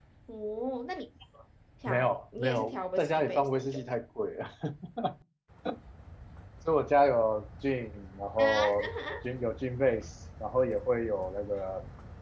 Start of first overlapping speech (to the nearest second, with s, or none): 2 s